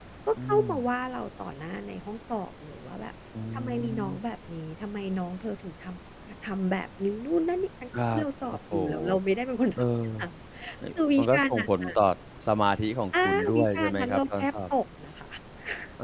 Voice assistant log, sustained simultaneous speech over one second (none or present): present